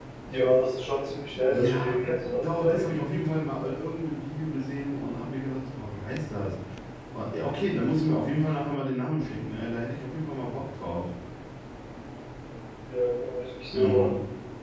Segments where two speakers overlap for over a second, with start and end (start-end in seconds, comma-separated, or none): none